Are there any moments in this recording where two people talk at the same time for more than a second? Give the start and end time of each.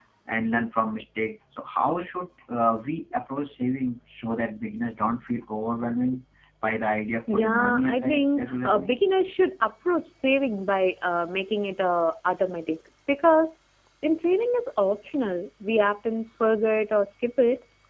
7.3-9.0

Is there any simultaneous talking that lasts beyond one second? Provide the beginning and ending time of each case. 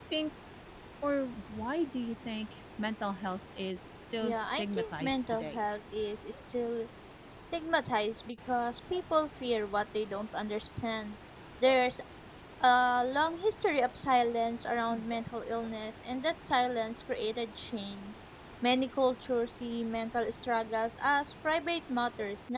4.2-5.7

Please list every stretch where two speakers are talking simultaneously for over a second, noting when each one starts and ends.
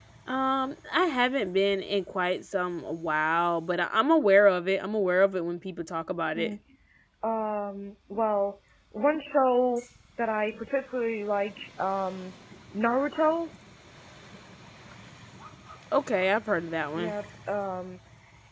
none

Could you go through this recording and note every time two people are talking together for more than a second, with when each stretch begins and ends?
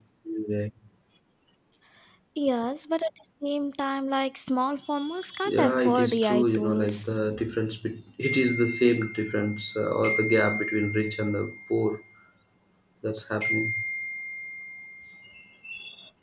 5.5-7.1

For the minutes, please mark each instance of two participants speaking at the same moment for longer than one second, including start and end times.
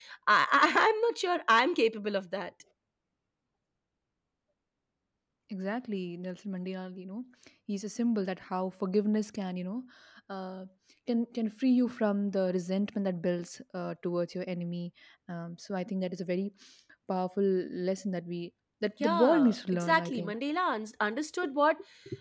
19.0-20.3

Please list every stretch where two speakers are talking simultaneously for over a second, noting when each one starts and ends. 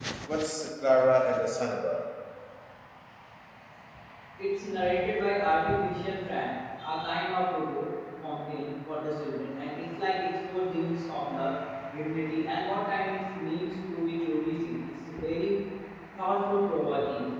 none

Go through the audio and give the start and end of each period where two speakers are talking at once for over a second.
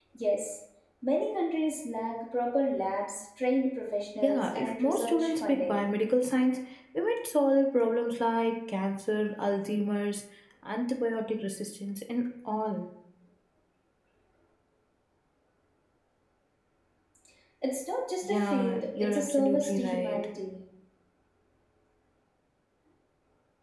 4.2-5.8, 18.2-20.2

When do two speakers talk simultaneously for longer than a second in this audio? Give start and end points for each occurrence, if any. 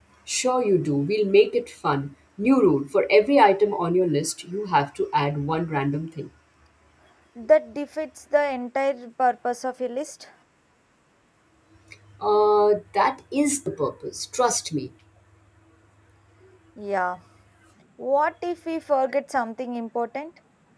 none

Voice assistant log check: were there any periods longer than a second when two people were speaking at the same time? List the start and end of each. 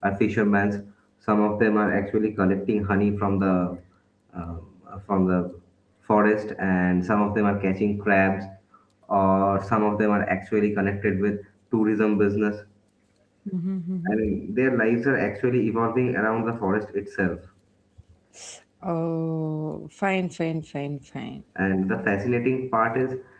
none

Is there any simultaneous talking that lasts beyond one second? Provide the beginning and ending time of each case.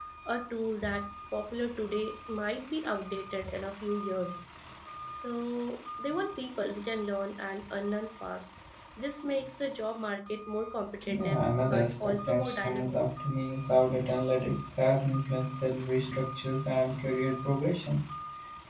11.0-13.0

